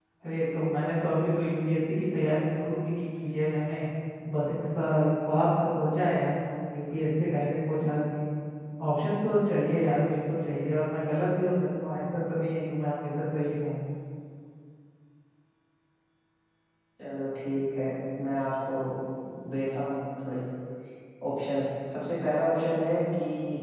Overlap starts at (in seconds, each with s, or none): none